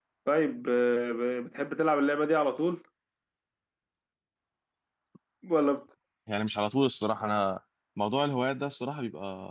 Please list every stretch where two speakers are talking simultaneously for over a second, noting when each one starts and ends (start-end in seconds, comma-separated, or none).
none